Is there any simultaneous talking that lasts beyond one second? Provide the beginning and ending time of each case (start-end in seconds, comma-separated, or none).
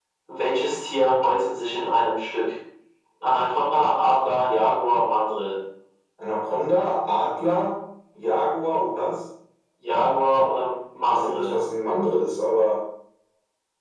none